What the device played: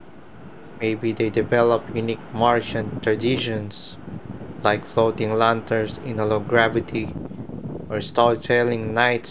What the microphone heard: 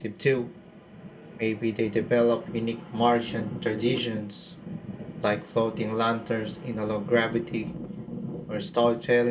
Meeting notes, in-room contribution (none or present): none